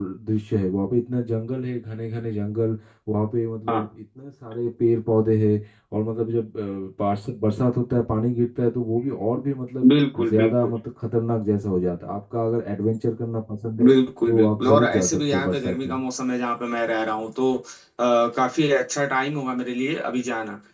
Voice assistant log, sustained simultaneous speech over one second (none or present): present